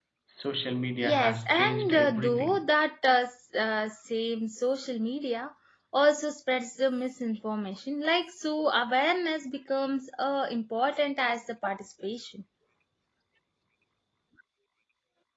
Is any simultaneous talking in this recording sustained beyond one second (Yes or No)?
Yes